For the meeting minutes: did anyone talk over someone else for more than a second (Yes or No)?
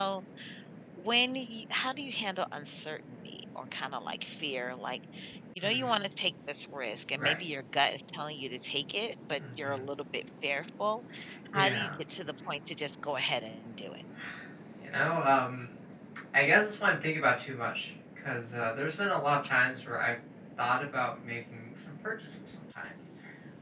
No